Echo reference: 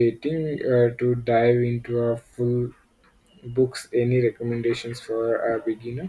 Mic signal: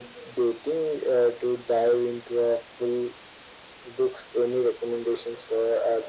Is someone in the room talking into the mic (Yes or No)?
No